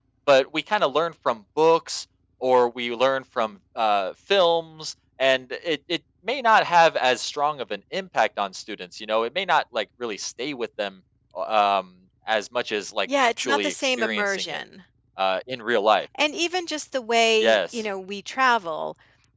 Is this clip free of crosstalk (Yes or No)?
No